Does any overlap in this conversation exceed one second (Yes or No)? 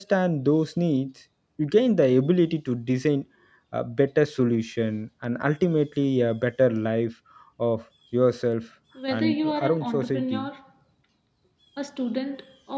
Yes